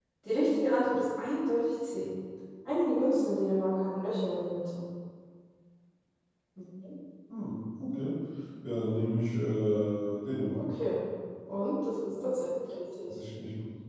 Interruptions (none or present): none